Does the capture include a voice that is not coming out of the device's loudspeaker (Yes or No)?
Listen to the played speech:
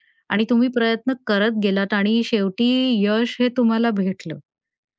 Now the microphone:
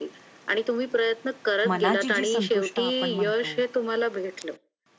Yes